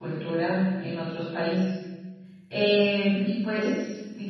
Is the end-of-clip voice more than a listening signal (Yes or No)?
No